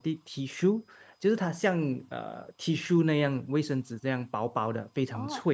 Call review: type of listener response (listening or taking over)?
taking over